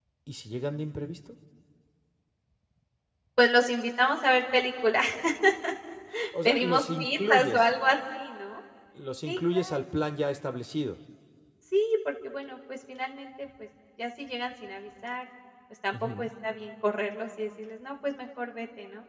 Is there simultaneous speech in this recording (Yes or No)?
Yes